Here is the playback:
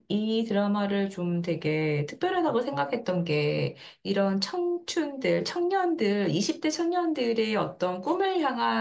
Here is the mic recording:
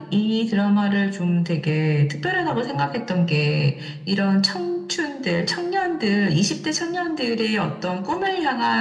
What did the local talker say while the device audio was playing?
none

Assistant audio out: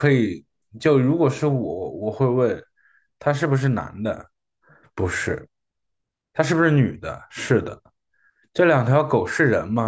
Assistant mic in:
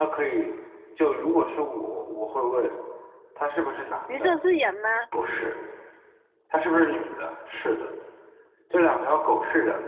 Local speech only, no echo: 你说是人吗？

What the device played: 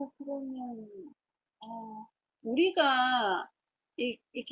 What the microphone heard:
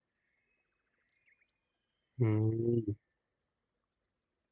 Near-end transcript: 음,

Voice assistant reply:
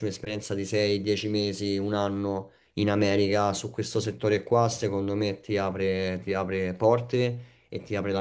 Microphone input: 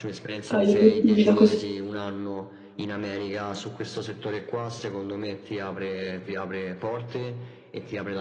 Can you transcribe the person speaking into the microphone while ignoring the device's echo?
hai obiettivi da questo?

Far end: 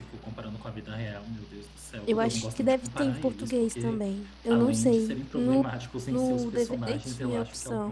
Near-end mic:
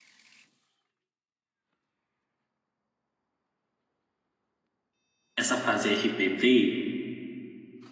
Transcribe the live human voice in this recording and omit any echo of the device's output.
essa fase RBD

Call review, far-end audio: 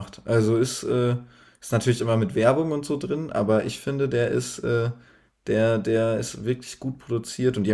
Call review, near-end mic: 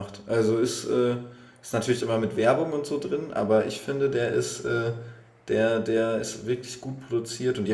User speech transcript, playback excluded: none

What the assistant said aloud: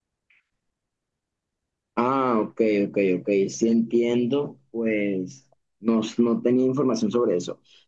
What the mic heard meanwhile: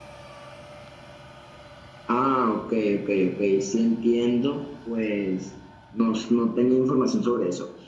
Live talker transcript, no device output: none

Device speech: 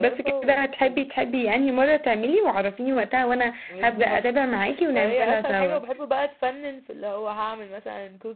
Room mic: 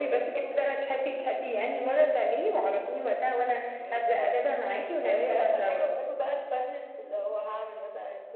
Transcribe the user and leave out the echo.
none

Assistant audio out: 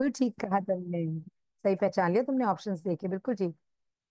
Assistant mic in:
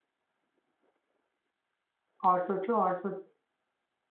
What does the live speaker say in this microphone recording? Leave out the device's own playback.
और सोचो और सोचो

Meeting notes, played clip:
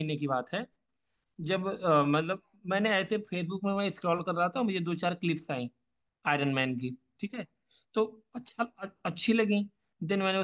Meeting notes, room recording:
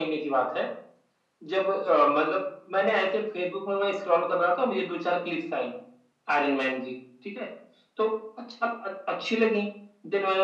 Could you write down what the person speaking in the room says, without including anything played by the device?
none

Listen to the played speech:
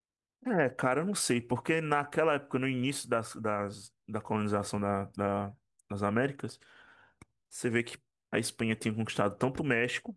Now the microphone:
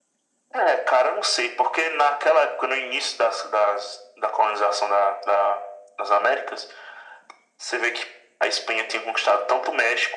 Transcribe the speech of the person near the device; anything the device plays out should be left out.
none

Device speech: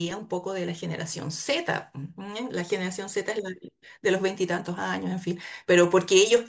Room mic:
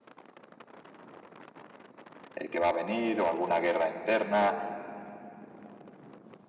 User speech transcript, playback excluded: eh, que va a venir o alguna guerra interna,

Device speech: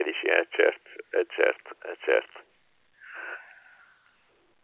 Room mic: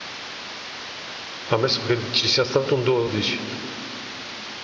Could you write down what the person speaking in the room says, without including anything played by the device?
ammesso che ci sia stato un 12.

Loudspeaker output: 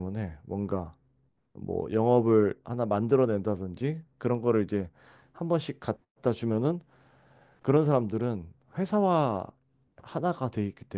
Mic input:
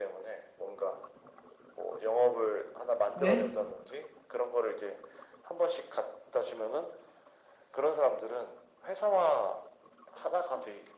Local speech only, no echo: 왜?

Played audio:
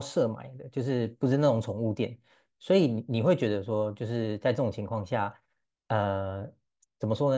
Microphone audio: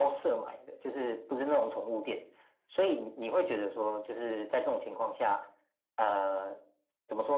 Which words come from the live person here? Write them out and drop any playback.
none

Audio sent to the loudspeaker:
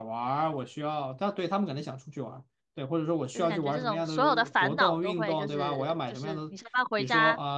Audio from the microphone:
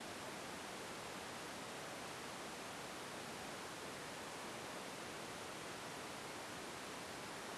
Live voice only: none

